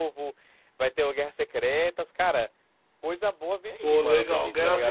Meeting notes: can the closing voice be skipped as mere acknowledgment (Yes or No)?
No